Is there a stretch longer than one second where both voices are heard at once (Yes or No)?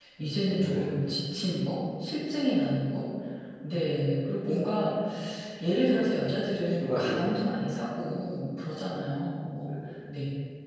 Yes